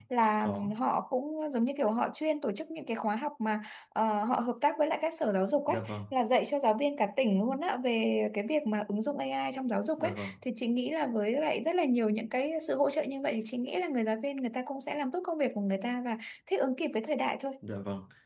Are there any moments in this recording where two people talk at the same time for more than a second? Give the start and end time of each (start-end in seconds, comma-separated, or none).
none